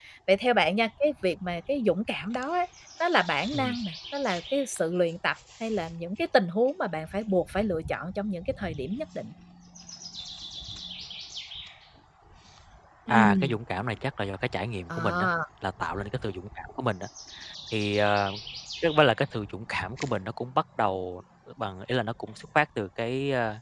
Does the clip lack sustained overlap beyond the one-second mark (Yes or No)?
Yes